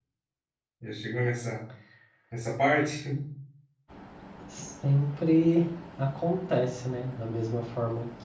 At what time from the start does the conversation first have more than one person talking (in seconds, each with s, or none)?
none